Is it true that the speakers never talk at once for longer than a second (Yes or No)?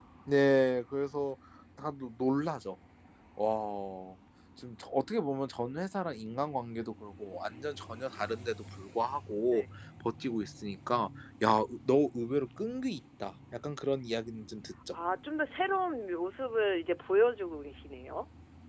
Yes